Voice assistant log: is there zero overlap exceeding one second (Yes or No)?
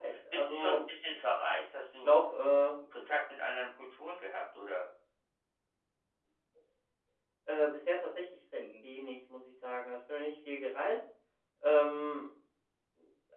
Yes